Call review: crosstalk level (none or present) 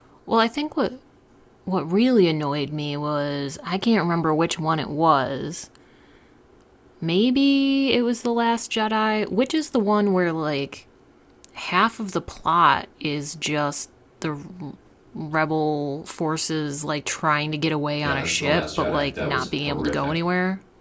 present